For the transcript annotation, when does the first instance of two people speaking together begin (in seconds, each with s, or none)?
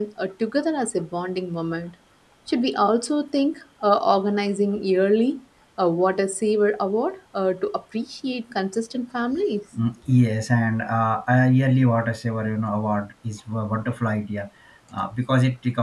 none